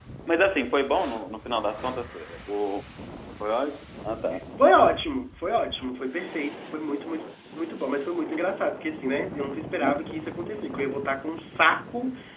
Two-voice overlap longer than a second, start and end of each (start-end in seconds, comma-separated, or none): none